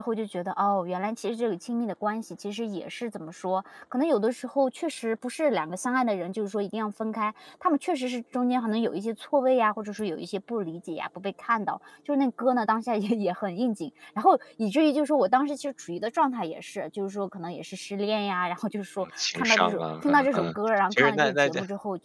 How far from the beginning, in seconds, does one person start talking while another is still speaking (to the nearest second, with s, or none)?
19 s